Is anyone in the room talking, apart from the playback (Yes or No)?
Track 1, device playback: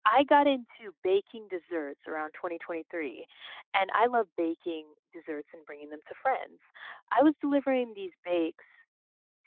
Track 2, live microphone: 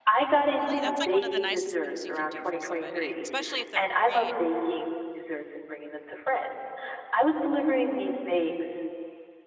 Yes